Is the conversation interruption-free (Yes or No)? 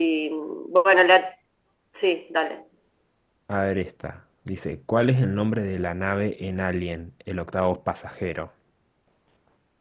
Yes